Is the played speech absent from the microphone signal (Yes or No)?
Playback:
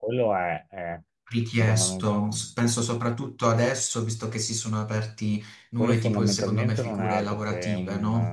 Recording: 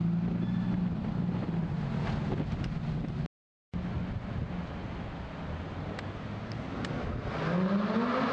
Yes